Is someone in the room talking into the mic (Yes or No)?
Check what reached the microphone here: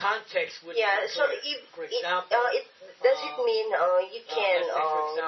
No